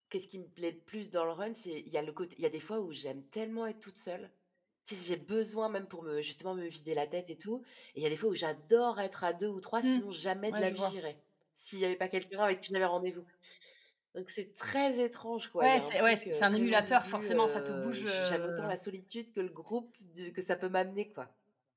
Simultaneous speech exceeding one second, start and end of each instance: 15.6-18.7

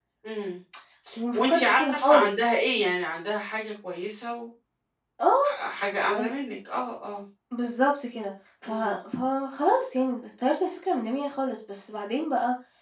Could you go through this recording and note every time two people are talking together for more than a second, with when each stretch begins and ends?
1.3-2.6

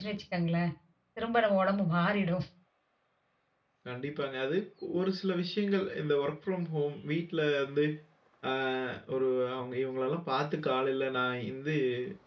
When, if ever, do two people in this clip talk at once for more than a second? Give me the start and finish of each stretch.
none

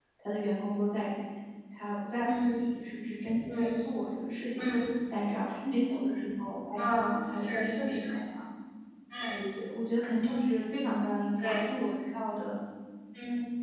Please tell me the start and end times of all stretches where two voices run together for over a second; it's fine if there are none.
6.8-8.0

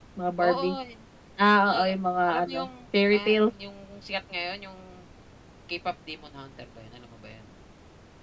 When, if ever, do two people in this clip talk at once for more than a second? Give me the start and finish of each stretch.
none

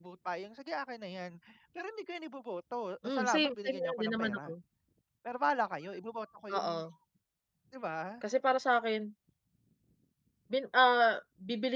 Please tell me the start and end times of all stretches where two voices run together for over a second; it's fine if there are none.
3.0-4.5

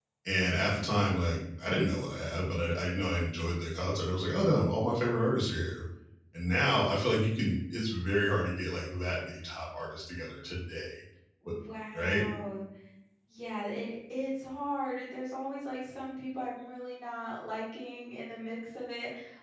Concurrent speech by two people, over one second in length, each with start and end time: none

